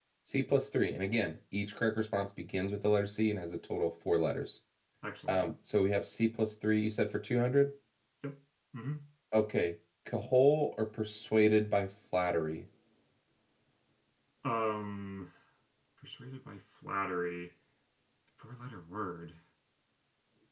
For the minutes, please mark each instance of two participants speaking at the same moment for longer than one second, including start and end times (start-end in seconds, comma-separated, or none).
none